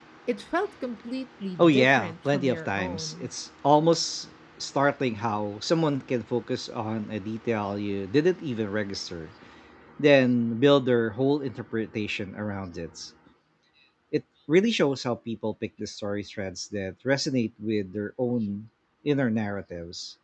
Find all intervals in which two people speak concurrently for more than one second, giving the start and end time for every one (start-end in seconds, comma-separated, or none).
1.6-3.3